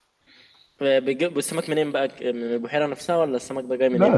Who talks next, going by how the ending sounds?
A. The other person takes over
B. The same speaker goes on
A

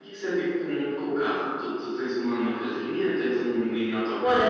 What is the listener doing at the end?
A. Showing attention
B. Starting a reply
B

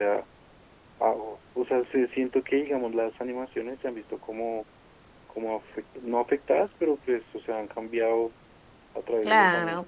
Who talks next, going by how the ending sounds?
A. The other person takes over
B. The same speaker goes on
A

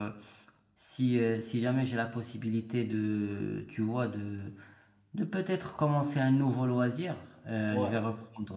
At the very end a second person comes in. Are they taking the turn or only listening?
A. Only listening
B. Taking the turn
A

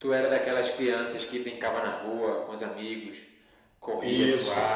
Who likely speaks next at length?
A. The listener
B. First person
A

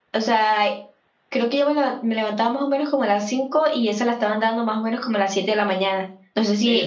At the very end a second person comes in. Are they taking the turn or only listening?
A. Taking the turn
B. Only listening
A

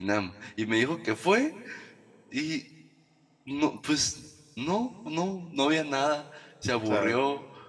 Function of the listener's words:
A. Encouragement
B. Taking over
A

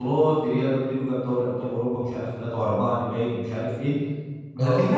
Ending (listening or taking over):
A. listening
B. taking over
A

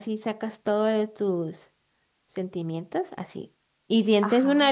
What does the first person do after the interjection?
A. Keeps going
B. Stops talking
A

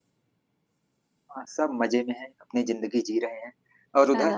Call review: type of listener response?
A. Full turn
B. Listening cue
A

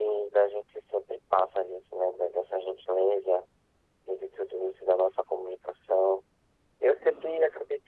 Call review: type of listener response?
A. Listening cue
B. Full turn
A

